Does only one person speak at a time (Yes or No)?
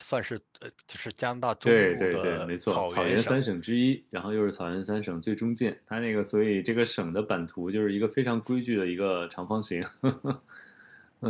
No